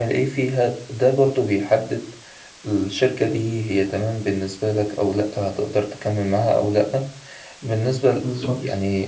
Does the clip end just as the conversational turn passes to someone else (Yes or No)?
No